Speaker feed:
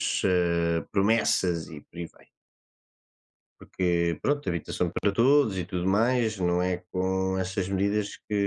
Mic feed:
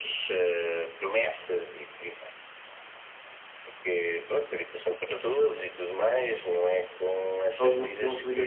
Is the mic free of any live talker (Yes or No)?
No